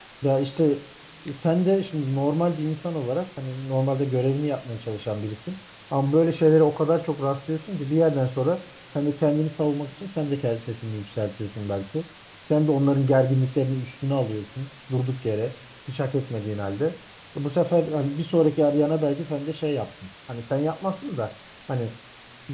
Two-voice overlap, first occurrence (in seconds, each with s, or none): none